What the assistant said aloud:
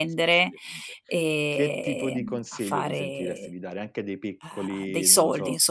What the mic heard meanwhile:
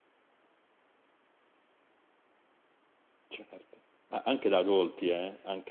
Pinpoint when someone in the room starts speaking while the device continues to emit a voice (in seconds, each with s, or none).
3.3 s